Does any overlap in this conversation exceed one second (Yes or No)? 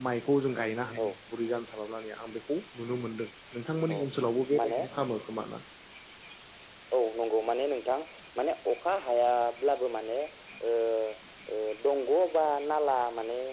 No